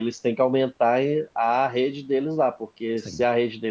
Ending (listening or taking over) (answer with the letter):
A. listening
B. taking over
A